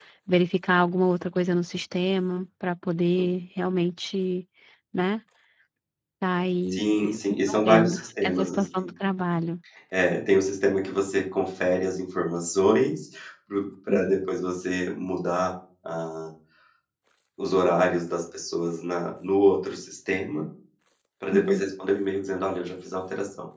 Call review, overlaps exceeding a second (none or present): present